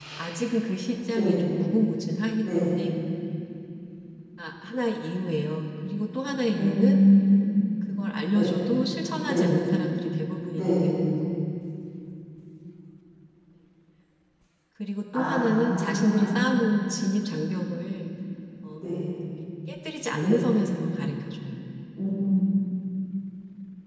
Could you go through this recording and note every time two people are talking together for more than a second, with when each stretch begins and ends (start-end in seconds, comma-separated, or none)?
15.1-16.4